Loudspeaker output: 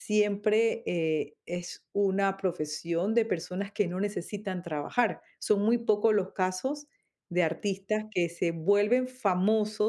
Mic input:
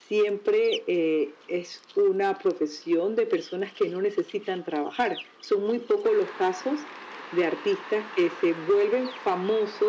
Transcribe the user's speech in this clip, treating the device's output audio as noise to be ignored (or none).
none